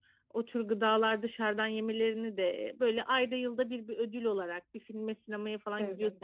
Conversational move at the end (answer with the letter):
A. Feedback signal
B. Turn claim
A